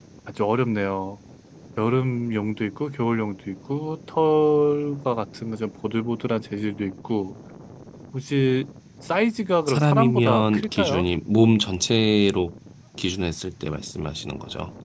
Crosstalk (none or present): present